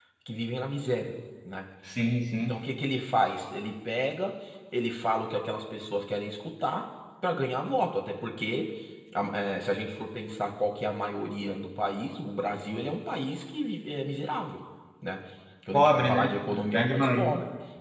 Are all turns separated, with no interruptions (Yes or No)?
No